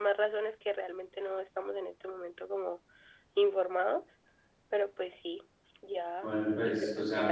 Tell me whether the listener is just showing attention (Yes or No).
No